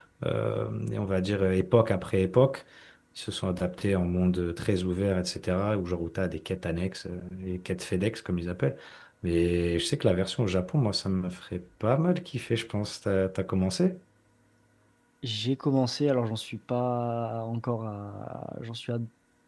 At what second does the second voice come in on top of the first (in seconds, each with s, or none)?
none